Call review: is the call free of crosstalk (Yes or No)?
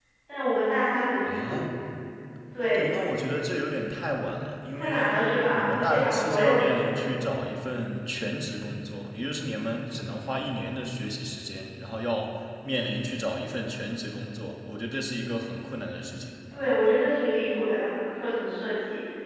No